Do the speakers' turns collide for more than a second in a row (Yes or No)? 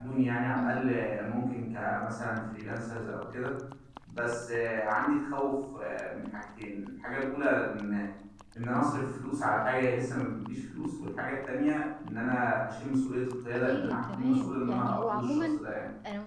Yes